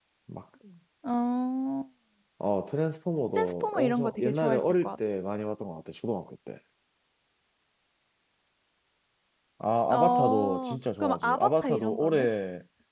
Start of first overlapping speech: 3 s

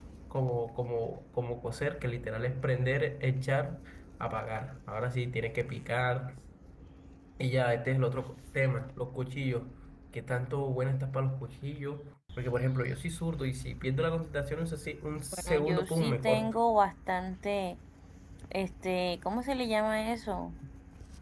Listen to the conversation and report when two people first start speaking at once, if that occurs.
15 s

